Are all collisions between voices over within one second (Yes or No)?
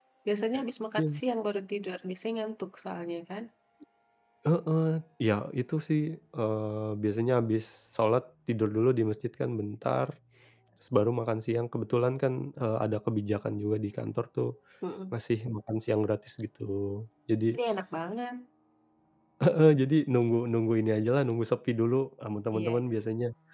Yes